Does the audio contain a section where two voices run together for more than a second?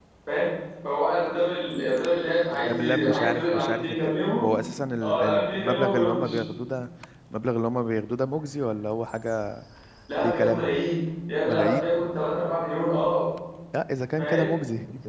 Yes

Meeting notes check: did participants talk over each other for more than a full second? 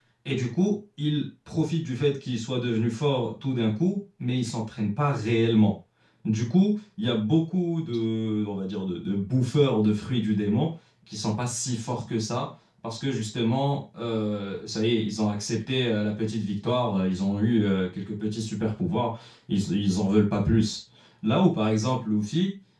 No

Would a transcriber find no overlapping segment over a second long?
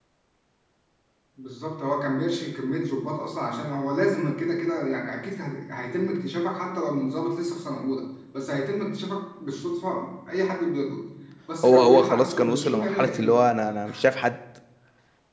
No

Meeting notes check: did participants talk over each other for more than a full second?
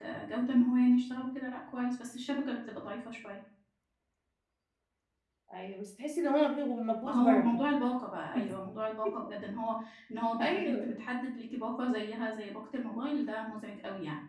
No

